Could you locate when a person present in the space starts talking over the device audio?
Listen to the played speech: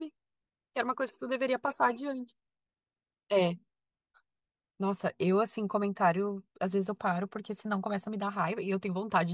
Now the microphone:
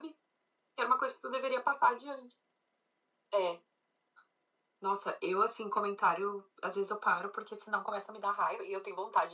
none

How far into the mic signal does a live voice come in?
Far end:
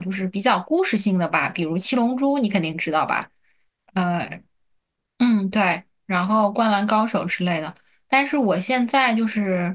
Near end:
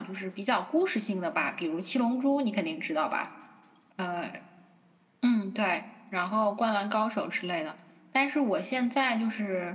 none

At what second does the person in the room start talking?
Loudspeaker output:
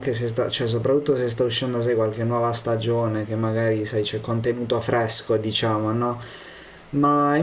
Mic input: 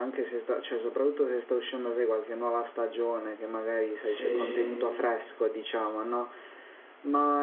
4.0 s

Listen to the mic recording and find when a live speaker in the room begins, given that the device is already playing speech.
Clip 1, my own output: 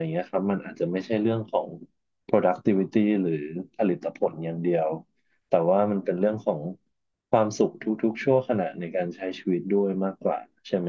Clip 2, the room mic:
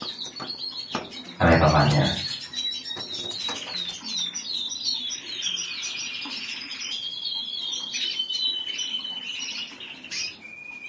1.4 s

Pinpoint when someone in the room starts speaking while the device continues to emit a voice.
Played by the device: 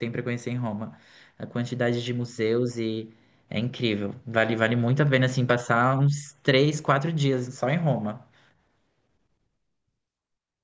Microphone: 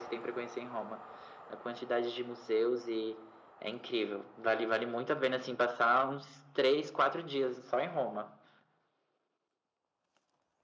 none

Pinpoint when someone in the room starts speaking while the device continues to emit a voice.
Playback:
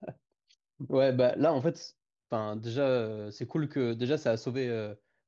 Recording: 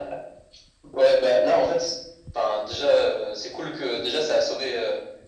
none

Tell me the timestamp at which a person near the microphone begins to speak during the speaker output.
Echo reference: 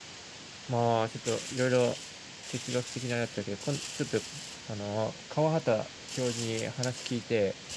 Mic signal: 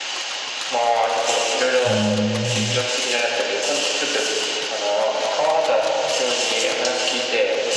1.9 s

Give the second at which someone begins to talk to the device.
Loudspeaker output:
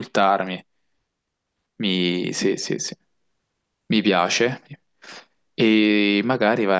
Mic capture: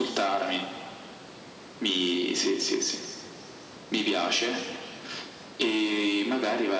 none

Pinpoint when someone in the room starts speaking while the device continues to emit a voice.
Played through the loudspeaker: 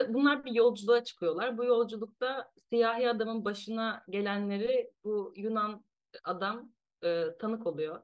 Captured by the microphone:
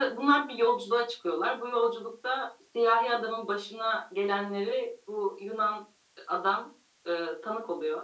none

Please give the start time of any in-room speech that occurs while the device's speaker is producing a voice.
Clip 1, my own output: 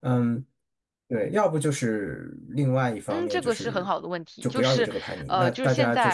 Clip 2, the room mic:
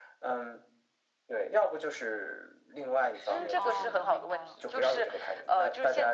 3.1 s

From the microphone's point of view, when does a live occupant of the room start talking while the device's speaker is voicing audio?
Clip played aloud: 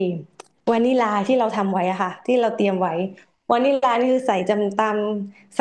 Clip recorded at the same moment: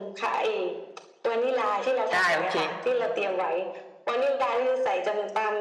2.1 s

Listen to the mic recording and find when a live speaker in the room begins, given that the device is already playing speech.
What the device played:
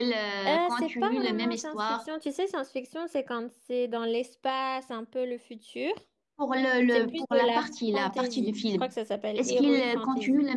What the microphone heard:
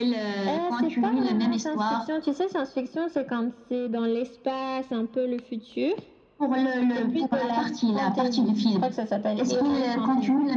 none

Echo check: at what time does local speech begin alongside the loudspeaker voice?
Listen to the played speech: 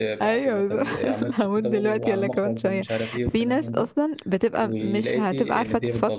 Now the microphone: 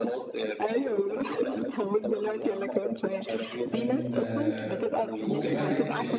3.7 s

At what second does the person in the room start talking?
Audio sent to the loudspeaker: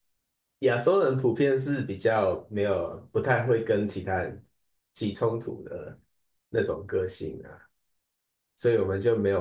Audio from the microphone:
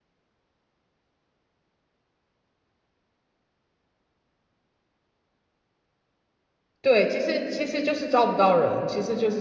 6.8 s

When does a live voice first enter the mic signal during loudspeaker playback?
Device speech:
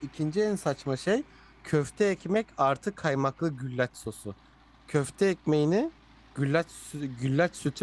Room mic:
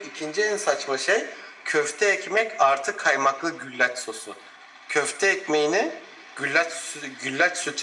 none

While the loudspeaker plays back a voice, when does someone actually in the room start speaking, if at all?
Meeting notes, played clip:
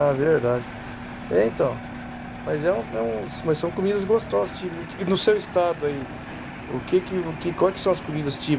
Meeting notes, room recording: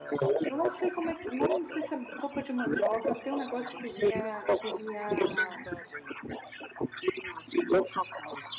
0.5 s

